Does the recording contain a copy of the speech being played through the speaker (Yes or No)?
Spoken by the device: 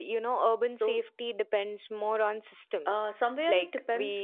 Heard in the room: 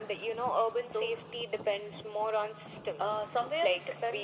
Yes